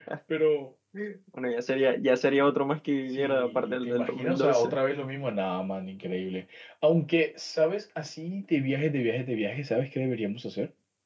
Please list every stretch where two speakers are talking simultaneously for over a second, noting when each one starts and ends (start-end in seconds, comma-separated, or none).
3.1-4.7